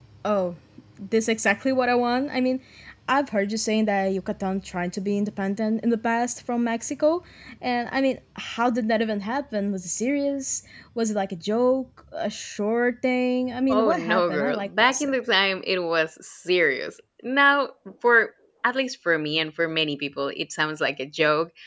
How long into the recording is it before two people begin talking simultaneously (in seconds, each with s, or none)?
13.7 s